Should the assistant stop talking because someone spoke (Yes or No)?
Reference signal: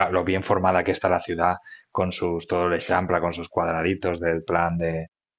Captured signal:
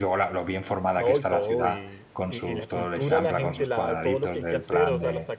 Yes